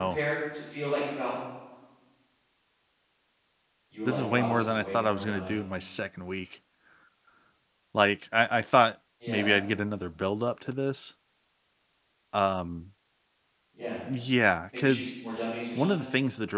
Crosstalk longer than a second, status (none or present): present